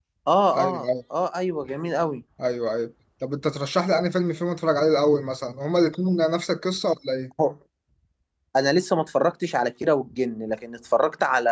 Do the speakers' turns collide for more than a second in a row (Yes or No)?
No